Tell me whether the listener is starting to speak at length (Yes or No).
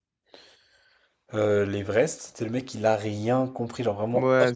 Yes